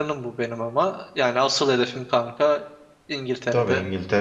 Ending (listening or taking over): taking over